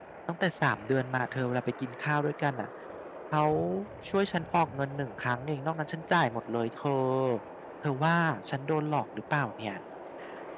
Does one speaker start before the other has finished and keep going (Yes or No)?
No